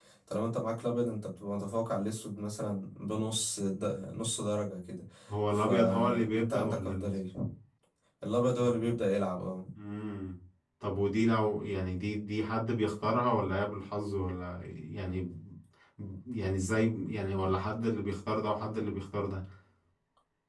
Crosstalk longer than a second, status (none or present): present